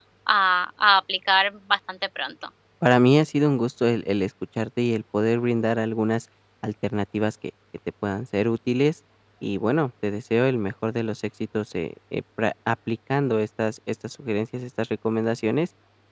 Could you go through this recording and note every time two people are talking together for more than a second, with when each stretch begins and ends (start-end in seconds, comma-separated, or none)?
none